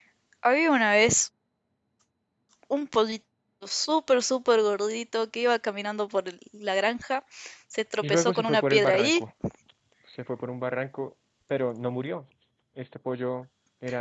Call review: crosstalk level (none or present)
present